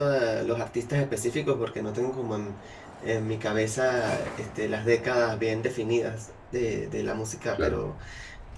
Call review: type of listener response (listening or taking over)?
listening